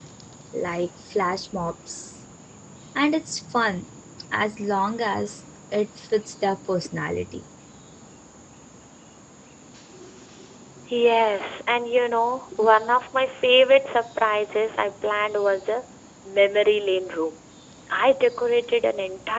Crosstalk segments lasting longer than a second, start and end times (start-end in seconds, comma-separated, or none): none